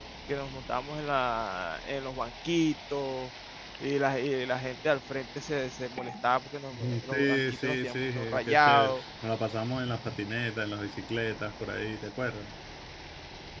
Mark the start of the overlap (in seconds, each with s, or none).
6.7 s